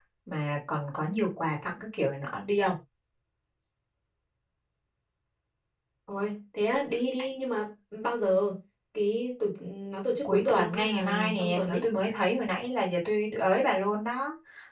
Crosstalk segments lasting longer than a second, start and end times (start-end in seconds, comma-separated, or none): 10.2-11.8